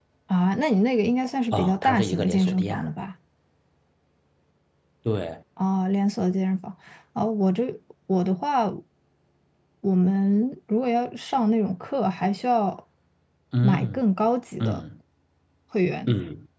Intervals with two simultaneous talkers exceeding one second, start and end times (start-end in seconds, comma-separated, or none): 1.5-2.8